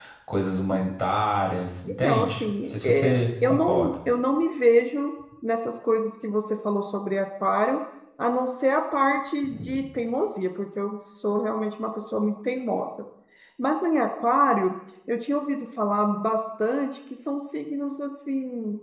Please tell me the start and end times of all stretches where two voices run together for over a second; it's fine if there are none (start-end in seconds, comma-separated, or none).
2.0-3.9